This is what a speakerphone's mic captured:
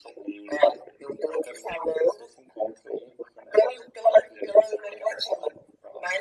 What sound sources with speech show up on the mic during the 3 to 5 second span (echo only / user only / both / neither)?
echo only